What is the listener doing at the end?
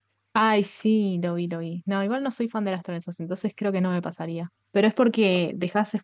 listening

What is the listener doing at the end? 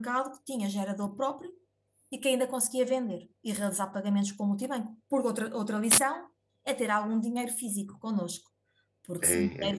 taking over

